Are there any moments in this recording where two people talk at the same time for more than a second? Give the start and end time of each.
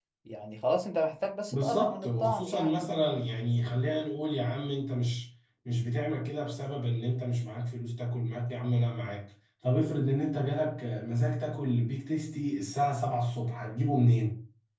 1.5-2.9

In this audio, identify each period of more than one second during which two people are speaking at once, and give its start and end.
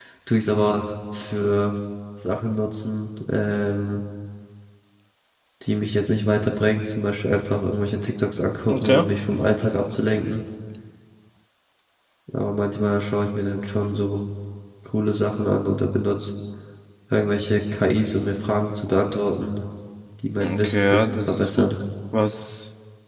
20.4-21.7

